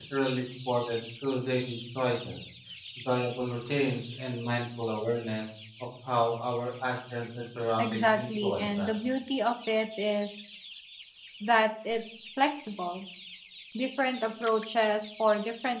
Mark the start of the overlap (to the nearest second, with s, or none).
8 s